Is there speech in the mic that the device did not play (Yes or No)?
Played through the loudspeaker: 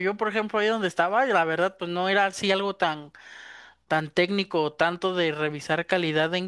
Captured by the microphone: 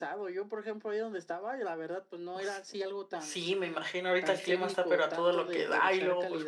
Yes